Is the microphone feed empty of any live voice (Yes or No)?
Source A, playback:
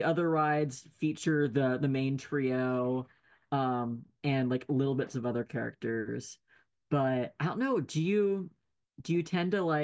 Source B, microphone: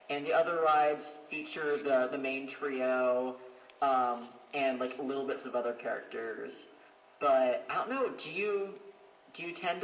Yes